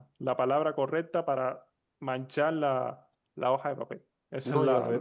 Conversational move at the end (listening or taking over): taking over